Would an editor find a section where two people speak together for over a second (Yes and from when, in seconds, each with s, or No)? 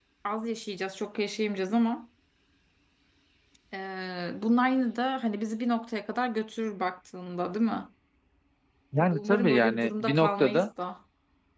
Yes, from 9.0 s